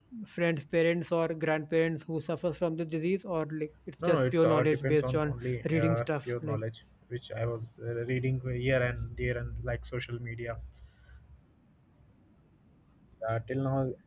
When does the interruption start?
4.0 s

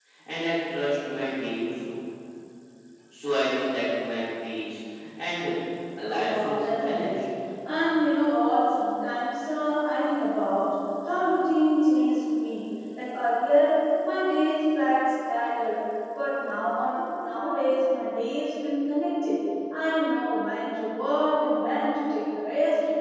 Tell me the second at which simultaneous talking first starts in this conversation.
6.0 s

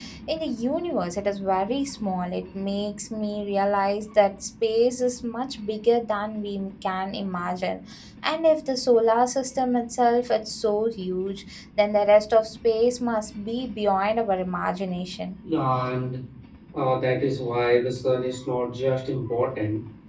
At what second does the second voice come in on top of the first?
none

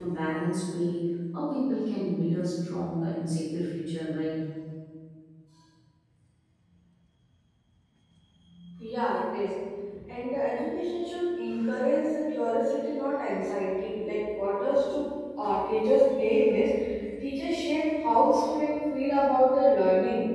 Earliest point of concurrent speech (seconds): none

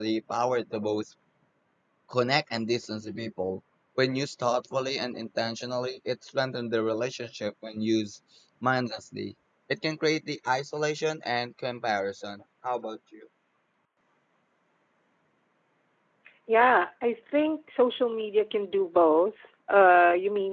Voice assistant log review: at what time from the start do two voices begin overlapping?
none

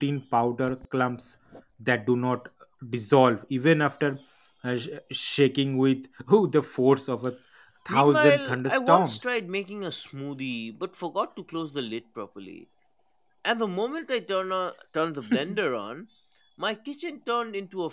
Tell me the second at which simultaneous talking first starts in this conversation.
7.9 s

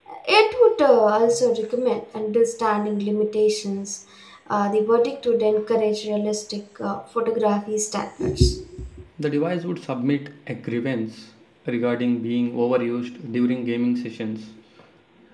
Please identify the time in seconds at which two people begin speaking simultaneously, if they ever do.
none

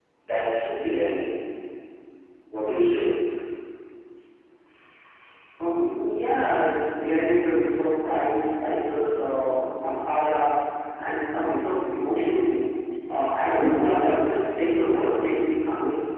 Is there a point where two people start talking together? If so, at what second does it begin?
none

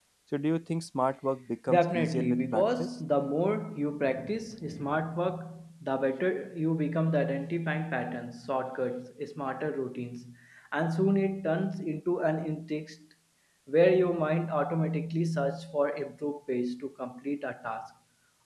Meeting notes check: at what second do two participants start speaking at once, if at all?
1.7 s

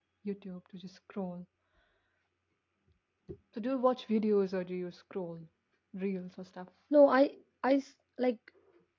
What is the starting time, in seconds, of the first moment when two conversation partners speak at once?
none

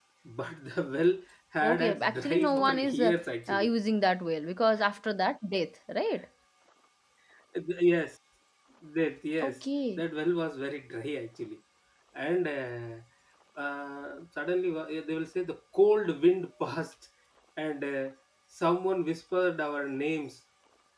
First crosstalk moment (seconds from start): 1.6 s

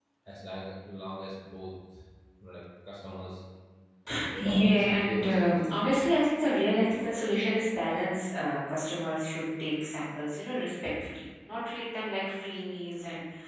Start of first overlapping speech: 4.3 s

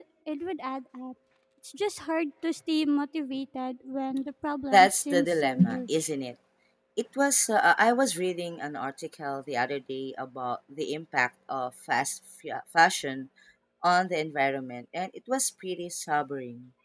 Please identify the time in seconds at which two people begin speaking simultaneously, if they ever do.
4.7 s

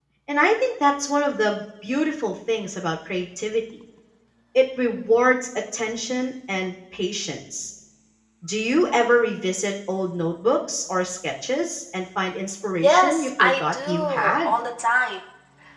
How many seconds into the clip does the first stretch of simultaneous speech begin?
12.8 s

